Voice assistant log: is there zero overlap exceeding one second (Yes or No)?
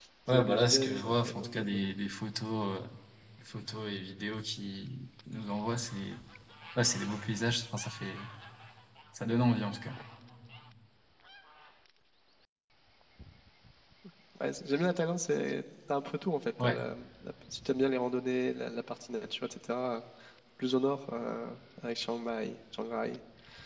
No